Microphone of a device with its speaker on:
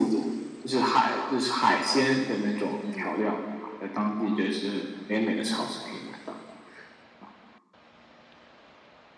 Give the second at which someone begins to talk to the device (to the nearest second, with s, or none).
3 s